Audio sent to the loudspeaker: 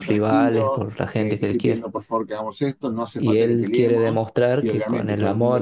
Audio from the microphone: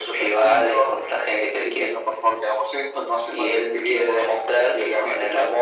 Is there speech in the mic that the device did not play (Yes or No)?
No